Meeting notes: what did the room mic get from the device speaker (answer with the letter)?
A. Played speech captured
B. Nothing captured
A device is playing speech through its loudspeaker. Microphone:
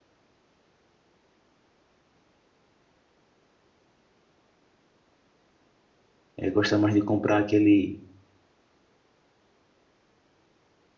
B